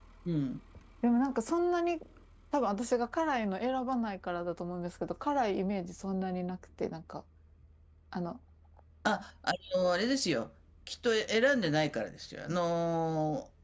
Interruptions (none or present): none